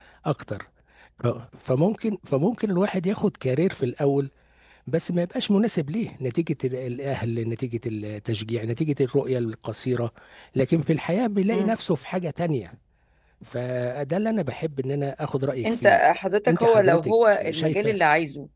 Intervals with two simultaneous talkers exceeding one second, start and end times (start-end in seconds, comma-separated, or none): 16.5-17.9